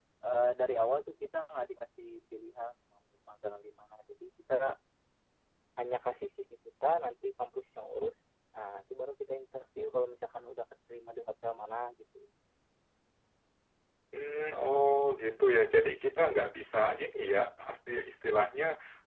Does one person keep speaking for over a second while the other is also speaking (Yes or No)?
No